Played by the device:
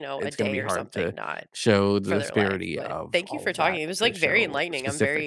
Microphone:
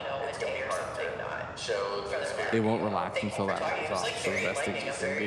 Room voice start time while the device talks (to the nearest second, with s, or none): 3 s